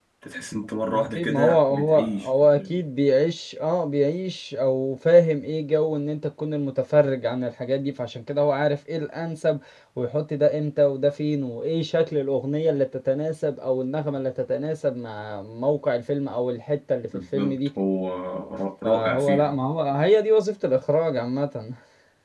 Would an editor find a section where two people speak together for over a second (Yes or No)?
Yes